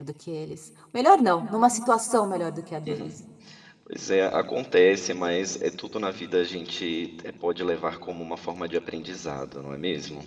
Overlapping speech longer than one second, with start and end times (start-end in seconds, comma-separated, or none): none